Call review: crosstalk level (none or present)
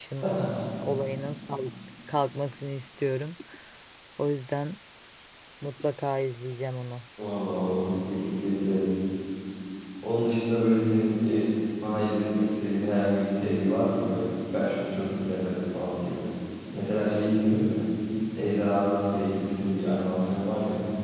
none